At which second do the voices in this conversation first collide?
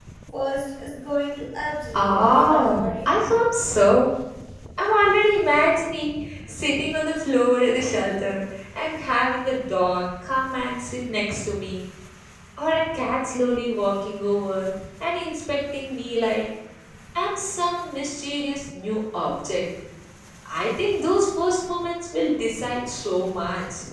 1.8 s

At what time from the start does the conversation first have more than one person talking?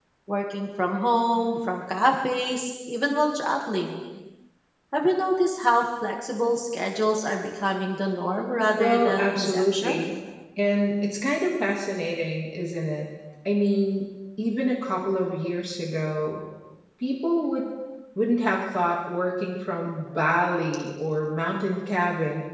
8.8 s

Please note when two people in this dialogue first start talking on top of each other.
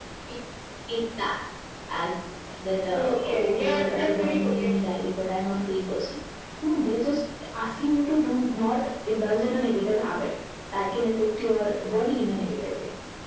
2.9 s

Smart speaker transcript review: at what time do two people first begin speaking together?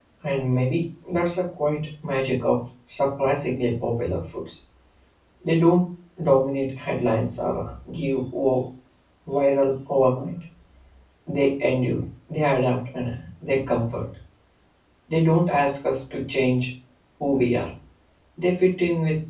none

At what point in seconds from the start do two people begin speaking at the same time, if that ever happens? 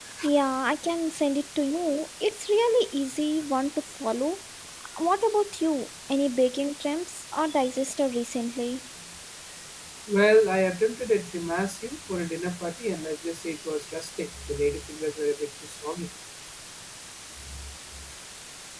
none

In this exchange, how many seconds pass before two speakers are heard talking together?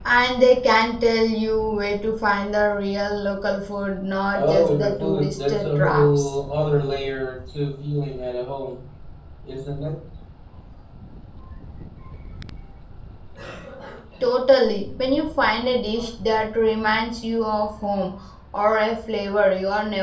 4.3 s

